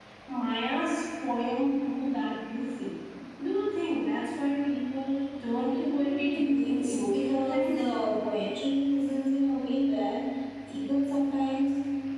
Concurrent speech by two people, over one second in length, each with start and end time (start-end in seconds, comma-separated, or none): 5.8-7.8